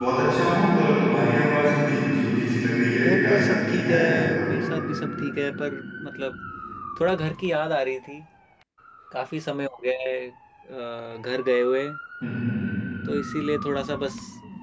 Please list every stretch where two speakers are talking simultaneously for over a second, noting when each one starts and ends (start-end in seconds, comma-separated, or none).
3.0-4.5